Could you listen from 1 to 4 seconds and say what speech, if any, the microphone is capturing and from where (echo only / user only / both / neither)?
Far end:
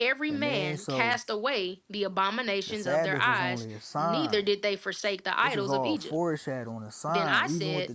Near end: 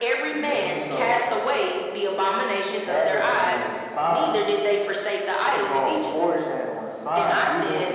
echo only